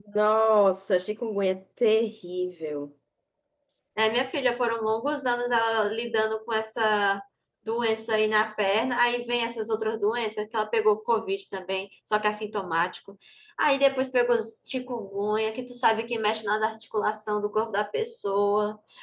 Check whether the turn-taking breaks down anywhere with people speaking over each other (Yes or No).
No